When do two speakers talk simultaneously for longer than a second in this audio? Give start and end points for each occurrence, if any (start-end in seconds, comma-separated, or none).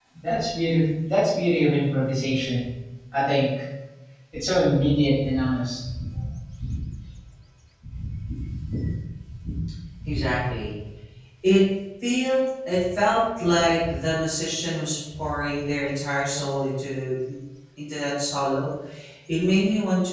none